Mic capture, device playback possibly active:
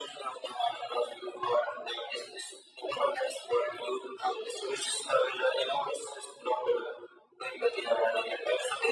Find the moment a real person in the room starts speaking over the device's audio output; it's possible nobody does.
none

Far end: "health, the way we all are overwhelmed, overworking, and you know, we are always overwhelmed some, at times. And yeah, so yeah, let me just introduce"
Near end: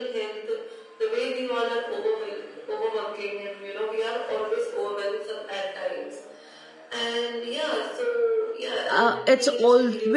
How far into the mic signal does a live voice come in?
9 s

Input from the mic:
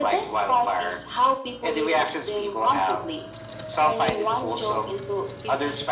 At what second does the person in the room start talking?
none

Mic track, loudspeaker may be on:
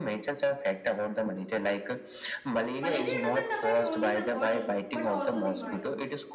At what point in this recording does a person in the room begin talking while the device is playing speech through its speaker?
3 s

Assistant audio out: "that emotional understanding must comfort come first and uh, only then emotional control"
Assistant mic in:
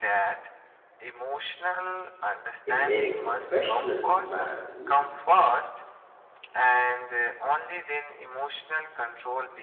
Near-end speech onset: 3 s

